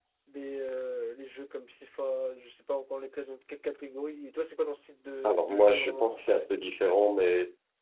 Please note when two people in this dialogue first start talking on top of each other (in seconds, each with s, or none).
5.2 s